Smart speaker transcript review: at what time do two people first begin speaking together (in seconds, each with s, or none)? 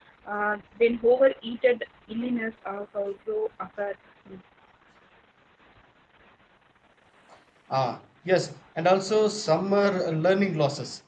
none